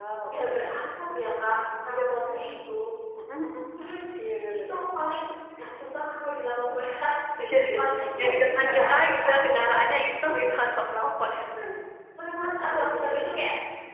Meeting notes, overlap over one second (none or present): present